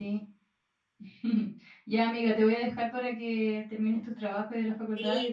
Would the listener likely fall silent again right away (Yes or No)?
No